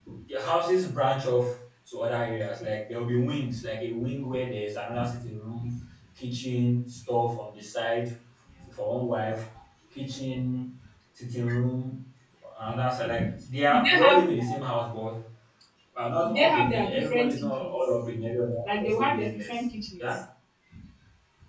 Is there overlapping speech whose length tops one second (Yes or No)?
Yes